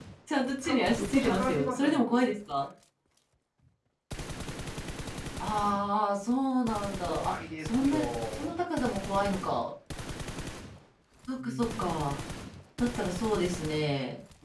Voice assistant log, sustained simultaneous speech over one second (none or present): present